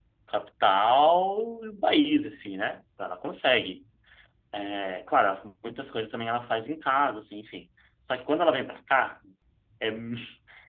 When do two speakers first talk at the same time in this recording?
none

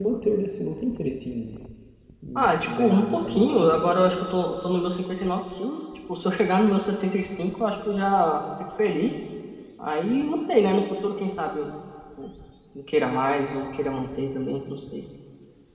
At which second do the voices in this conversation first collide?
2.4 s

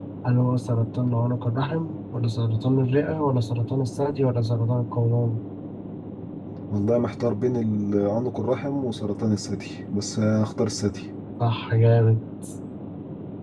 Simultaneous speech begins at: none

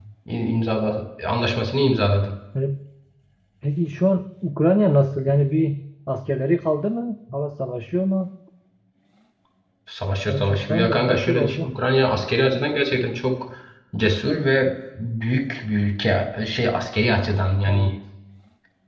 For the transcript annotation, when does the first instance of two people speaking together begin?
10.3 s

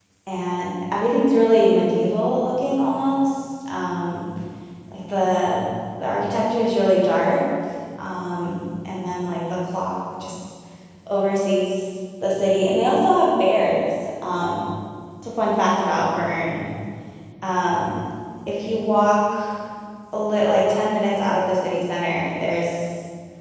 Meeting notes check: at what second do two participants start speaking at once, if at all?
none

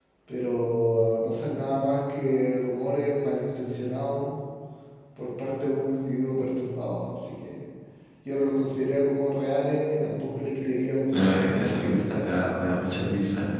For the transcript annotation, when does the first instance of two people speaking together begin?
11.1 s

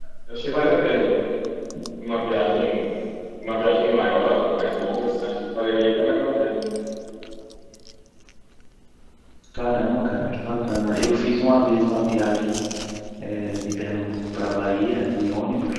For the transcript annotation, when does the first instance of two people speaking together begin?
none

